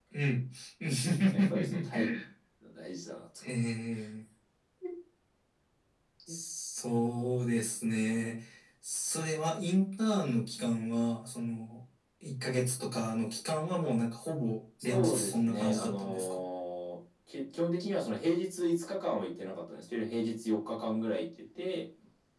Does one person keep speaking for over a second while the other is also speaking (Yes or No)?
Yes